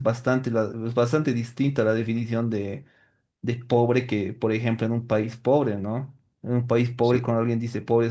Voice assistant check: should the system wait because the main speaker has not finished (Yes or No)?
Yes